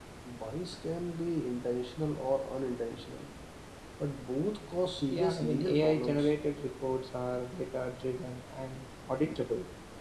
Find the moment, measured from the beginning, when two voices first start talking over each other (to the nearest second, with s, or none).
5 s